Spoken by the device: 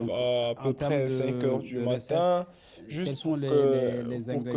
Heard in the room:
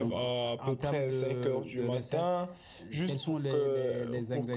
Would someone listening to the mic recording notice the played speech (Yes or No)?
Yes